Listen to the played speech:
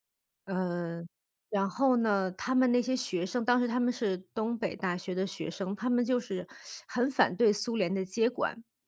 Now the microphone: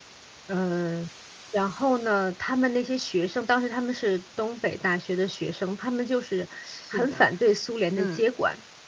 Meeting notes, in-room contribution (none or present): present